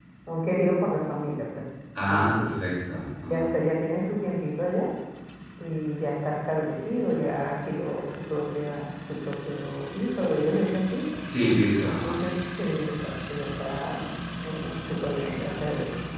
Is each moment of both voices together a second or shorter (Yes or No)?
Yes